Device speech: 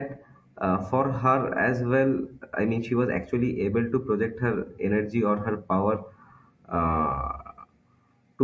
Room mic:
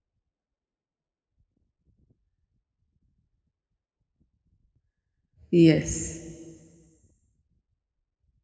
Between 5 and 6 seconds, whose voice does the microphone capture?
user only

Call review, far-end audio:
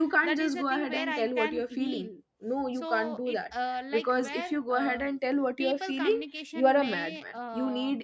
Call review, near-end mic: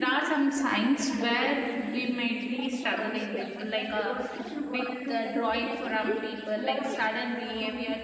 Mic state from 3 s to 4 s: both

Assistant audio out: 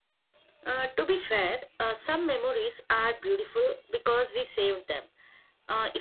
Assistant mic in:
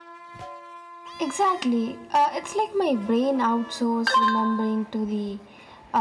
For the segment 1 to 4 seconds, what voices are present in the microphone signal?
user only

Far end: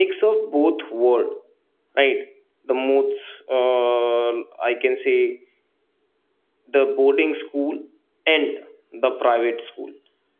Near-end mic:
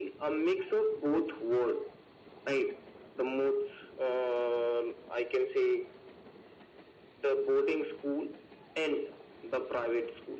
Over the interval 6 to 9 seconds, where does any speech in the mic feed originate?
echo only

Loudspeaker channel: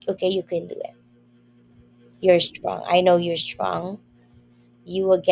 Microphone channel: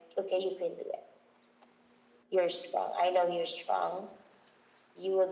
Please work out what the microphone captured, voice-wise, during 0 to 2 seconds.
echo only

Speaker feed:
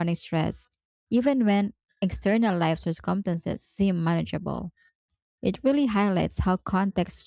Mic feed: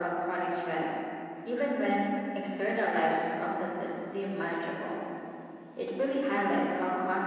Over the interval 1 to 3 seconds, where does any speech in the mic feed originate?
echo only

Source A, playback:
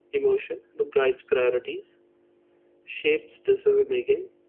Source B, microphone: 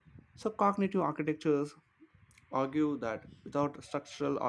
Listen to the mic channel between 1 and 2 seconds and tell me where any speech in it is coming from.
user only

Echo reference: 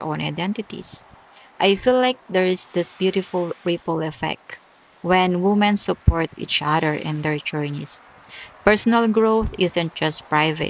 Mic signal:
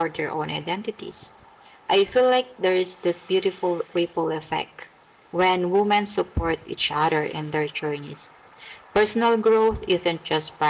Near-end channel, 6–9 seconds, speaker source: echo only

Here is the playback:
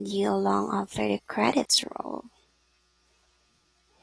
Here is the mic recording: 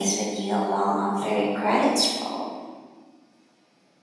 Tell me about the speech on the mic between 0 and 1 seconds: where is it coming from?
echo only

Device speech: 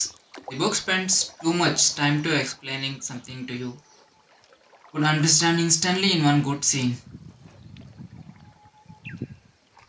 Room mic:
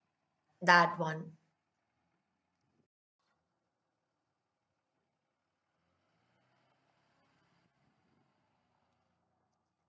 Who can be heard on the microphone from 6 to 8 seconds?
neither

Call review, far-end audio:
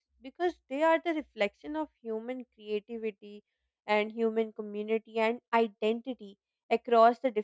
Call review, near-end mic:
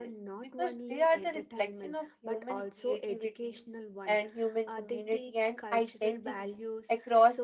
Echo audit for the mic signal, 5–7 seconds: both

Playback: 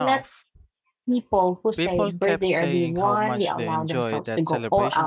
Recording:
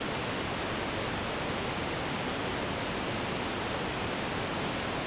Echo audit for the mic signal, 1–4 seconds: neither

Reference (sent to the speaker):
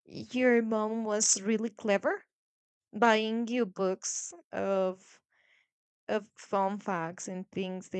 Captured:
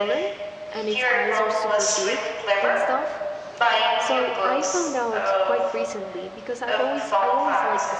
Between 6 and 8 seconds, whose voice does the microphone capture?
both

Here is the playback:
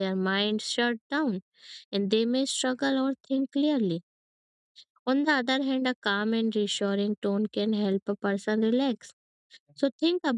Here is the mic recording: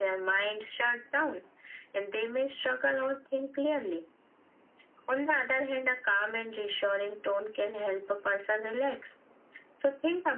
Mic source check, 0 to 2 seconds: echo only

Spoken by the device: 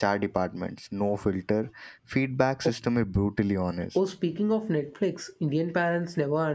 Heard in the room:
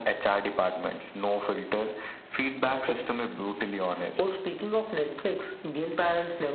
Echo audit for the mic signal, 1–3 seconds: echo only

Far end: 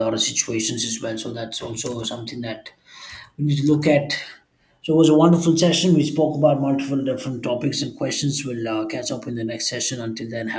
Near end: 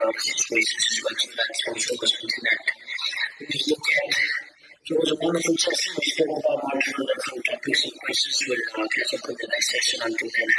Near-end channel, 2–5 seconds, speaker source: echo only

